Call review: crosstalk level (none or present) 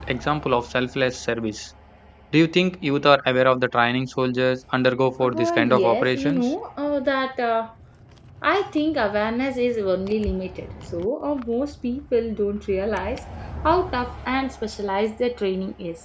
present